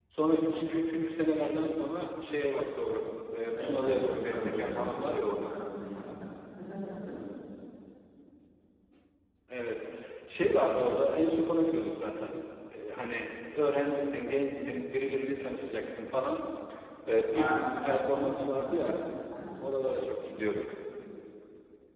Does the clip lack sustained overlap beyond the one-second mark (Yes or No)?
No